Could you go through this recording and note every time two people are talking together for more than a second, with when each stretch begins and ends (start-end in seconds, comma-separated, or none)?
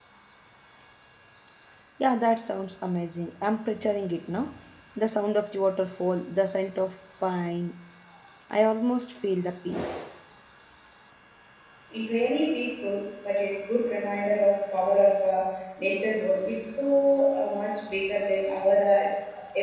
none